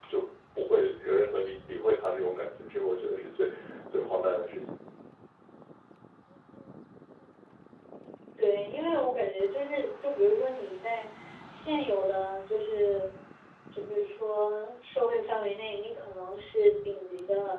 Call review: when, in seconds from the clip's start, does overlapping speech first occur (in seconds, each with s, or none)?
none